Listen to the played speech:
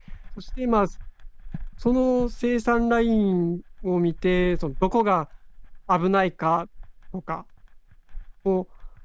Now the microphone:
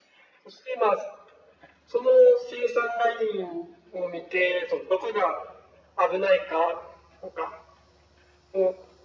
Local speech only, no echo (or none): none